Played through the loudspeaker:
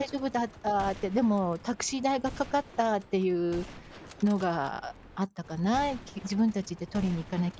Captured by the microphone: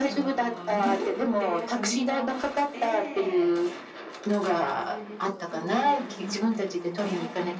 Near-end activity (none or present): present